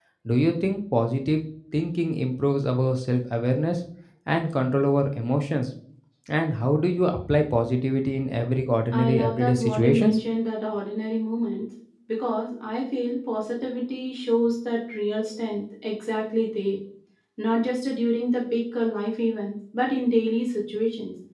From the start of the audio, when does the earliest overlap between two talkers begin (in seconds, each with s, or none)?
8.9 s